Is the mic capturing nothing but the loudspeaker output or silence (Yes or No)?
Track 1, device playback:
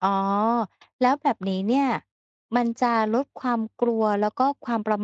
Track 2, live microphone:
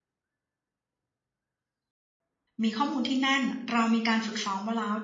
No